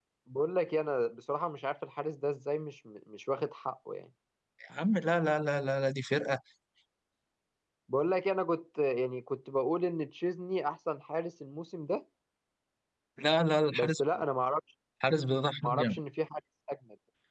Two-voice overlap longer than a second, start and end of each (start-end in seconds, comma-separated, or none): none